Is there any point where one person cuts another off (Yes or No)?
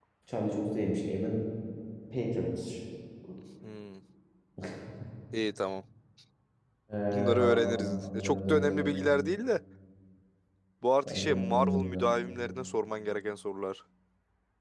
Yes